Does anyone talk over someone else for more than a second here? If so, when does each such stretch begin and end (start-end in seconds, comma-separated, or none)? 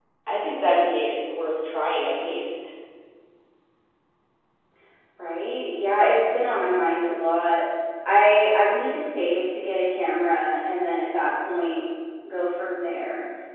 none